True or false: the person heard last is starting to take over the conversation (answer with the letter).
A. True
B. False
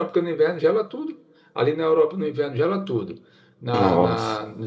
B